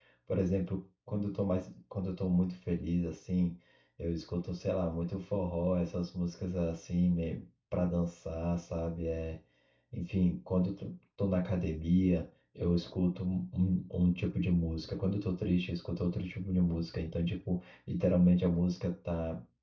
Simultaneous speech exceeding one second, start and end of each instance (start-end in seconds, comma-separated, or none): none